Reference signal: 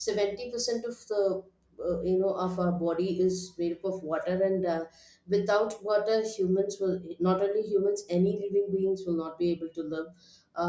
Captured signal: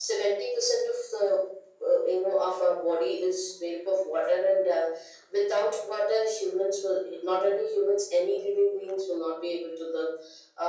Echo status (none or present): present